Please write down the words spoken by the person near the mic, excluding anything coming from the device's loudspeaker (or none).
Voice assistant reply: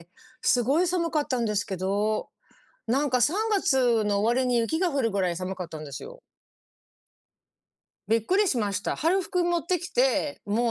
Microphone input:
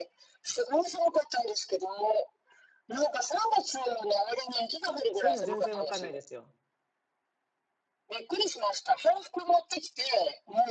そういうの全然わかんないですよ。